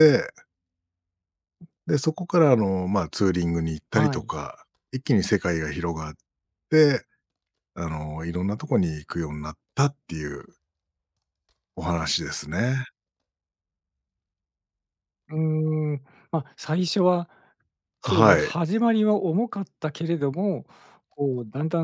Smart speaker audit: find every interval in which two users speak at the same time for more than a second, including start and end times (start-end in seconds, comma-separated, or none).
none